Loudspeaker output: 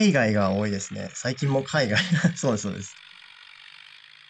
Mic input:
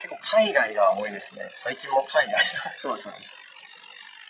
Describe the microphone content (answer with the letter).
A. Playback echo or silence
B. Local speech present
A